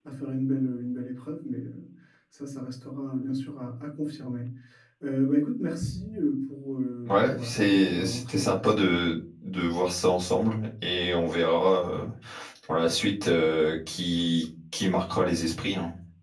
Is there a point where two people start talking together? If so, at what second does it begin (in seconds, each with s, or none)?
7.0 s